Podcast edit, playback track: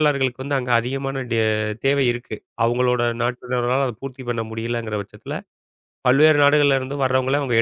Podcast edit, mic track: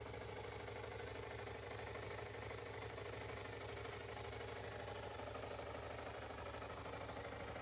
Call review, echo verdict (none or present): none